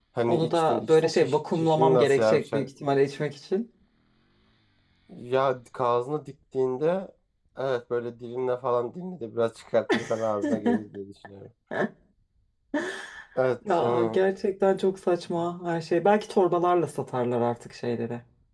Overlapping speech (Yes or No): Yes